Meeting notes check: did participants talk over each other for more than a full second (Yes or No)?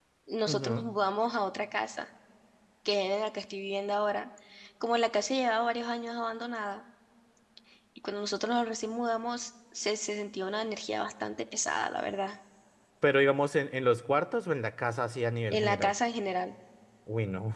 No